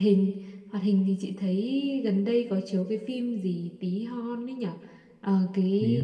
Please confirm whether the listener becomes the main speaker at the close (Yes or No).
No